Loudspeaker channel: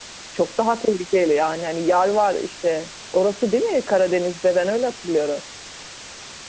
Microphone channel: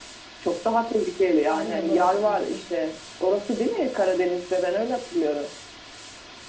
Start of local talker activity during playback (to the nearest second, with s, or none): 1 s